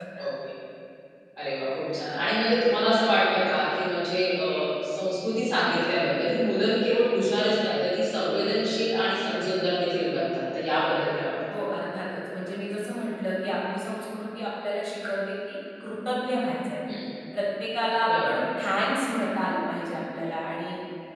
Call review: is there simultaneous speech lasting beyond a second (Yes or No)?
No